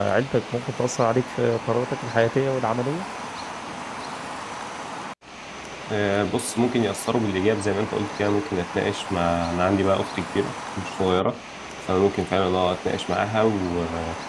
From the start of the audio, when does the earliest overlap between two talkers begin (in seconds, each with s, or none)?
none